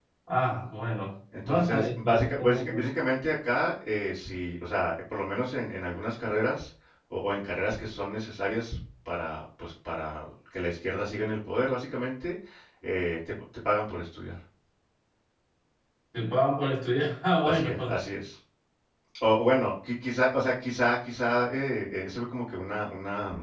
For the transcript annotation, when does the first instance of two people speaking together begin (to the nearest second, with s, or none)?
1 s